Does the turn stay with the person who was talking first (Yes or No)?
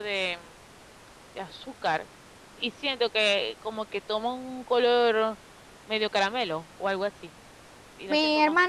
No